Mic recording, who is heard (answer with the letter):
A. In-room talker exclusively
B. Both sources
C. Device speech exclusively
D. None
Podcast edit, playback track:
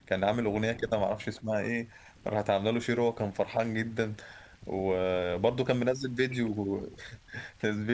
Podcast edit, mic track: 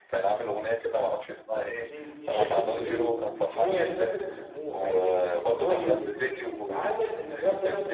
B